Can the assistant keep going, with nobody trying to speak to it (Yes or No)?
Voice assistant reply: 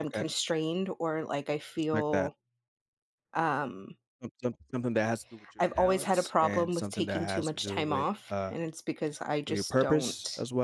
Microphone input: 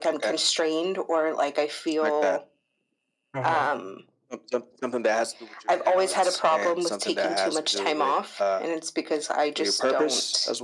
No